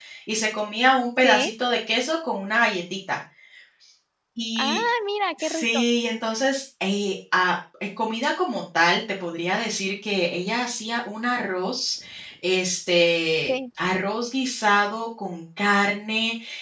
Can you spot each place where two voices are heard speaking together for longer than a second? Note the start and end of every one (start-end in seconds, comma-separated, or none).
none